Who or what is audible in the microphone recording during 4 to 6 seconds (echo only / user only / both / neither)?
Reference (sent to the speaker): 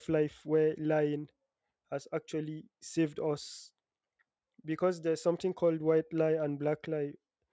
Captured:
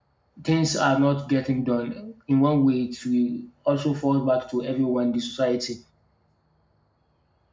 user only